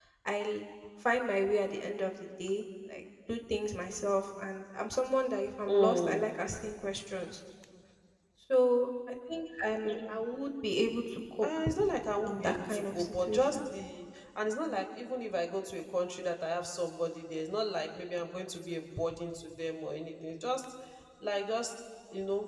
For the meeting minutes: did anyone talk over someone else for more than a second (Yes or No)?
Yes